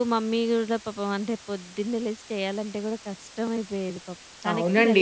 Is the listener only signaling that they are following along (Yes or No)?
No